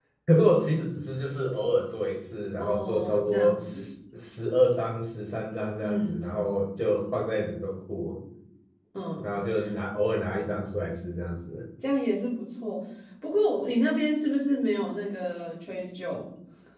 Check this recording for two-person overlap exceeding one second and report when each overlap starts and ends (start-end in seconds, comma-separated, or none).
2.6-3.9